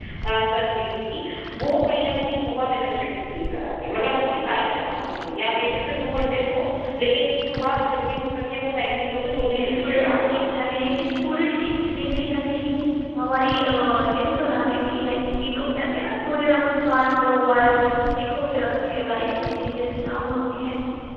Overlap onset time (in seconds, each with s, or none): 9.2 s